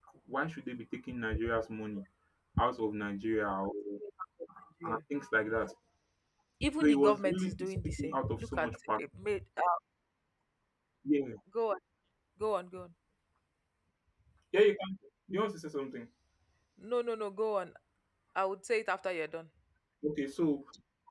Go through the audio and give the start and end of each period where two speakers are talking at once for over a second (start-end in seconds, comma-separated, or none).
6.8-9.0